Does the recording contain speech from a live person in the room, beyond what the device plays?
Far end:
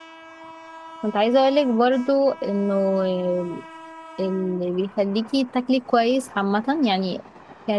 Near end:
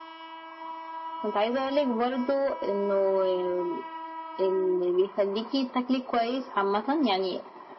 No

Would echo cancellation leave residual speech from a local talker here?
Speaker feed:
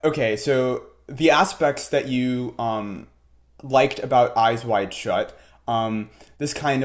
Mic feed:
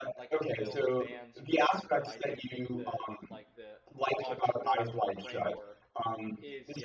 Yes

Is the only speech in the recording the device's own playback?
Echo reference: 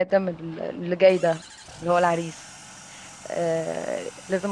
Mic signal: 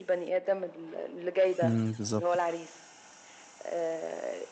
No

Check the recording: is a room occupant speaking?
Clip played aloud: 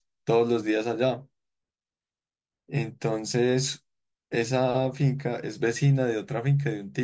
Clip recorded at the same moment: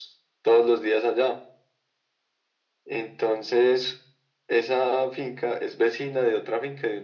No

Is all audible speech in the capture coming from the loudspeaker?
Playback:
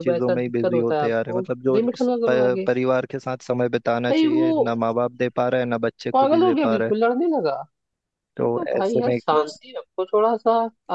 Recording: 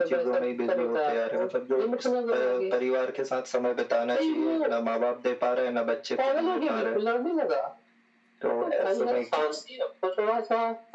Yes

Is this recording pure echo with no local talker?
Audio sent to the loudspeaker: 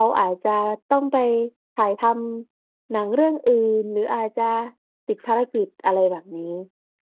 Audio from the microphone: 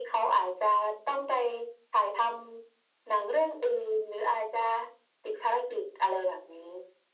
Yes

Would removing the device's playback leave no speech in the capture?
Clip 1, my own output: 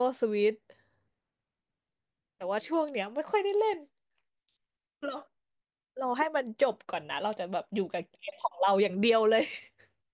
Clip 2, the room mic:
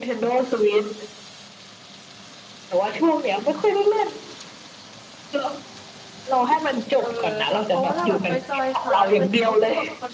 No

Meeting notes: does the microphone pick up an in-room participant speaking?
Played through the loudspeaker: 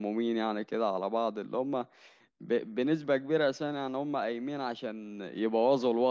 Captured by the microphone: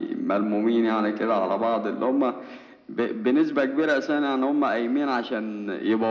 No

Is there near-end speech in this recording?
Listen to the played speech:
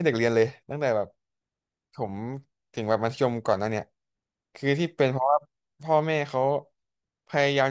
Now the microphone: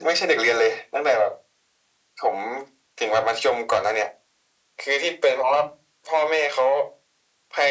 No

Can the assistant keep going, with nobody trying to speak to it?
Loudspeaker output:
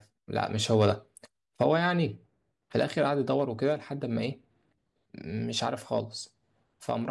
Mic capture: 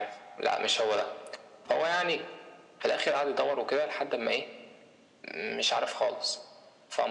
Yes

